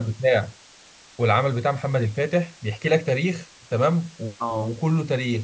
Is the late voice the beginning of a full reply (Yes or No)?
No